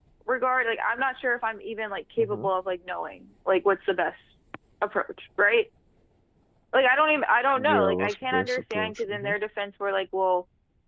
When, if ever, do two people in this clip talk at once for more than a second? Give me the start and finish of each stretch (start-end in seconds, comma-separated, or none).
7.6-9.3